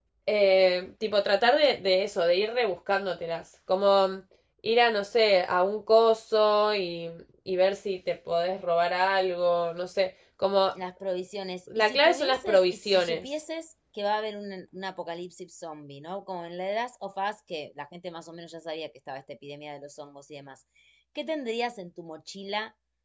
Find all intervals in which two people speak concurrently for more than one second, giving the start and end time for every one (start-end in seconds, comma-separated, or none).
11.8-13.2